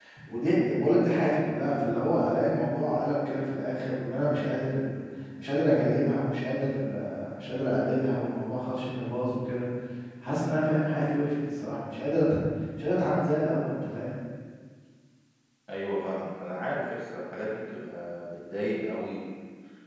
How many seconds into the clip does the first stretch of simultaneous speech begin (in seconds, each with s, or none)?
none